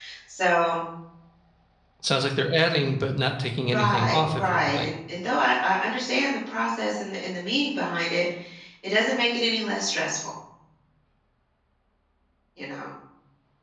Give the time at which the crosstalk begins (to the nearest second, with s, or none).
4 s